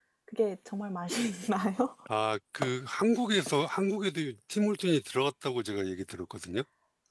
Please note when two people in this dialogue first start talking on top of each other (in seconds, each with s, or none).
none